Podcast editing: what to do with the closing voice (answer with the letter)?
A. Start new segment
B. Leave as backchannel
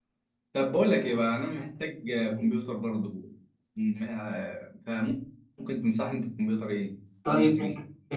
A